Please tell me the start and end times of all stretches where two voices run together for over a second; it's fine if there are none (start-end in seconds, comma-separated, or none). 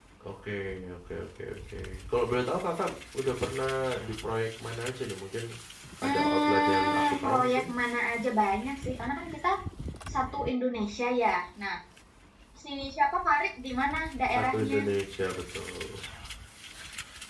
6.0-7.6